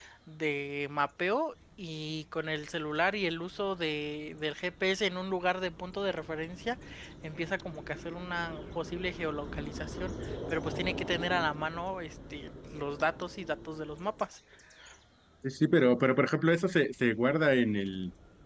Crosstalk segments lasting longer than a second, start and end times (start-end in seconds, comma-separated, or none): none